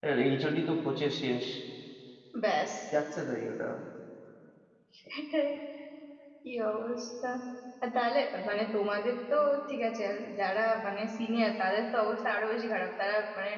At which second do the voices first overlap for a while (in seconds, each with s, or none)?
none